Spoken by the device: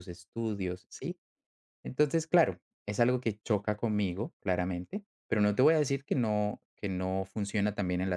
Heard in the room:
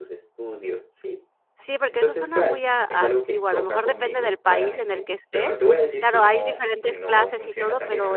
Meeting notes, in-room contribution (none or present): present